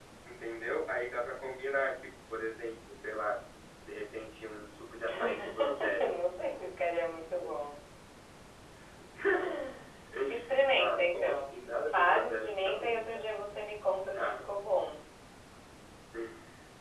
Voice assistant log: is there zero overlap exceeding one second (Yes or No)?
No